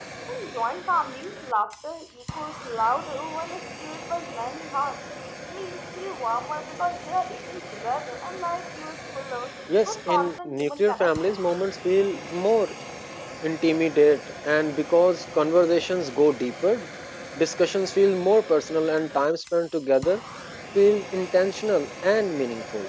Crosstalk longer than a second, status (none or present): present